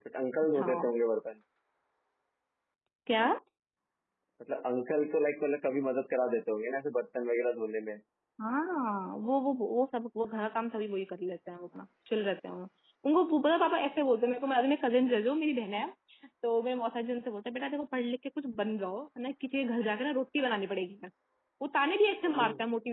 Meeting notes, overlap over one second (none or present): none